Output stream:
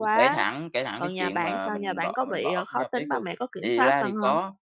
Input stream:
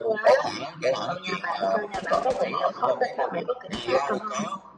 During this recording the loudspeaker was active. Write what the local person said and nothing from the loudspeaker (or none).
none